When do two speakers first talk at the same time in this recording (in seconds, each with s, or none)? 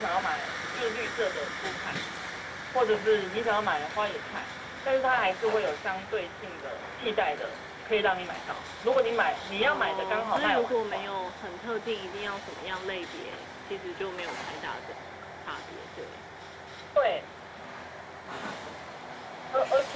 9.6 s